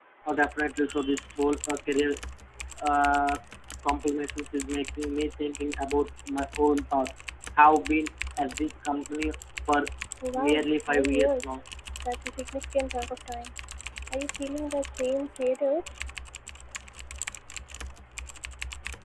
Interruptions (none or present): present